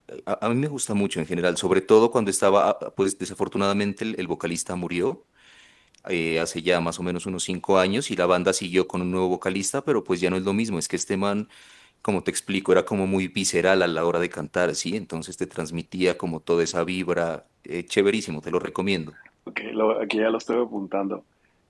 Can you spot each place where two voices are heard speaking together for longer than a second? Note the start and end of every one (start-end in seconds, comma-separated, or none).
none